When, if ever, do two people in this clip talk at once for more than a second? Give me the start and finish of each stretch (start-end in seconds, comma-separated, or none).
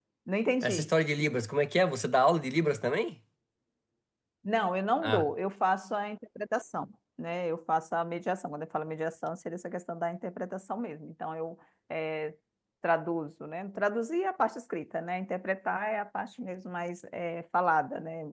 none